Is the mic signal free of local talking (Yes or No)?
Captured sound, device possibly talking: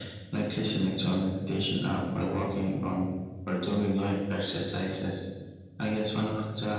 Yes